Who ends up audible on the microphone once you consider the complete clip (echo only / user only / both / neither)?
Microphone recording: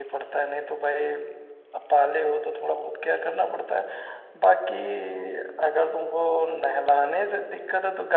user only